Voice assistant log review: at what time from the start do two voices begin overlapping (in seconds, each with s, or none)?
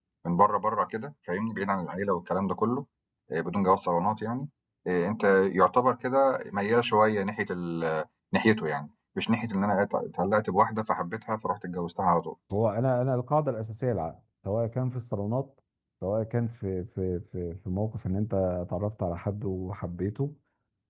none